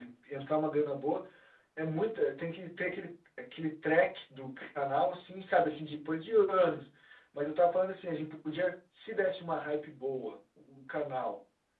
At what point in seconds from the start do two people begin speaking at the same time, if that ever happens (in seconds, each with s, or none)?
none